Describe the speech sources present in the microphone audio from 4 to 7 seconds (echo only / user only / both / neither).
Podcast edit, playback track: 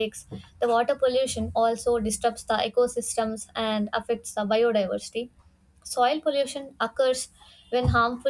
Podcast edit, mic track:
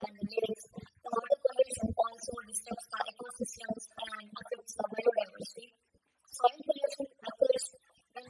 echo only